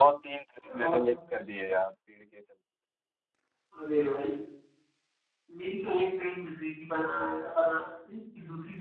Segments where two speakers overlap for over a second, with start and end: none

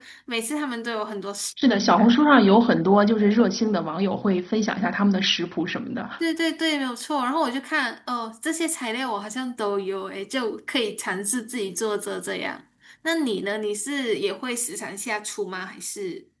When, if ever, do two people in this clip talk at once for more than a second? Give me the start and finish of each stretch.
none

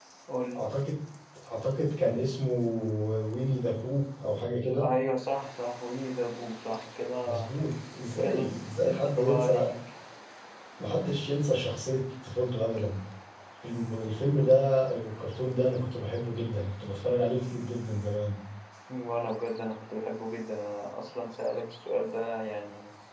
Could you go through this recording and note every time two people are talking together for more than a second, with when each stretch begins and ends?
8.2-9.7

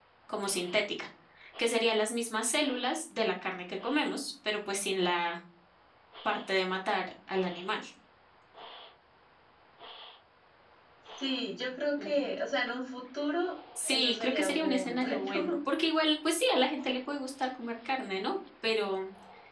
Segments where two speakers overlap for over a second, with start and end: 13.8-15.3

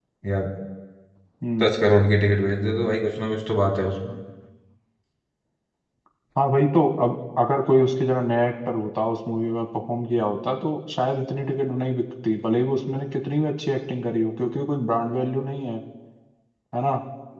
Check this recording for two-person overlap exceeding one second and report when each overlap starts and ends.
none

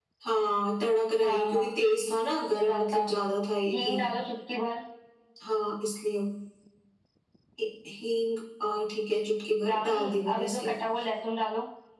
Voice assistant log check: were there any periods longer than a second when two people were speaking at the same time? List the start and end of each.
9.7-11.0

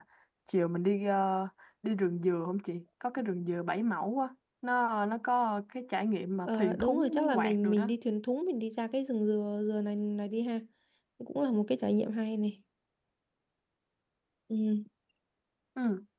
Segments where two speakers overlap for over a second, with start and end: 6.5-7.9

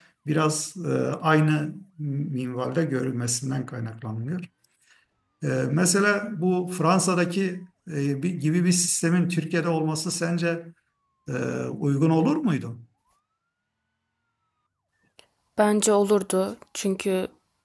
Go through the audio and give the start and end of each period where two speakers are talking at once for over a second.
none

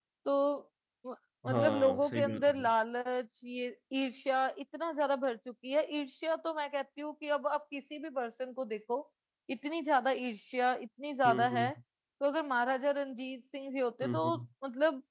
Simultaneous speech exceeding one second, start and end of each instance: 1.5-2.7

